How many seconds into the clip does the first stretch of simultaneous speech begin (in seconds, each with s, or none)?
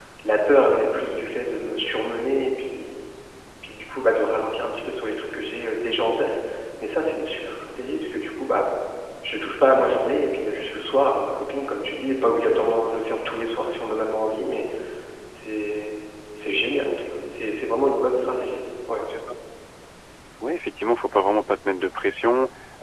none